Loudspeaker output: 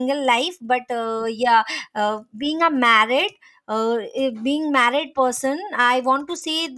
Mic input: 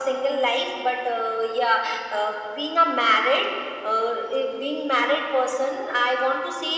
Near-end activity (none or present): none